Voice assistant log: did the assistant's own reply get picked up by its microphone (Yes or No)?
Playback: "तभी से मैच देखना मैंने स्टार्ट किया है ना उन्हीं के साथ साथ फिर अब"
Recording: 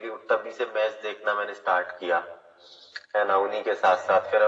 Yes